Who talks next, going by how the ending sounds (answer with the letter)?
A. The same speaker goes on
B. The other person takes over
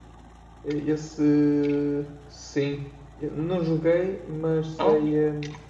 A